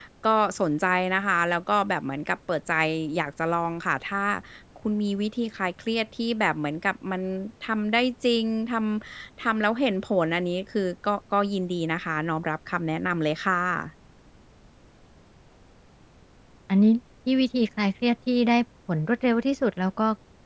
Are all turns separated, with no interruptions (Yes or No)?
Yes